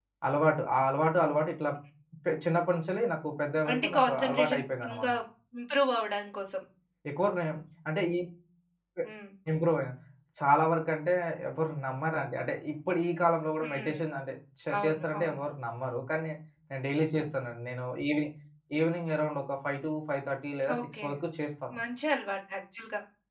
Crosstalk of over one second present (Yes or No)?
Yes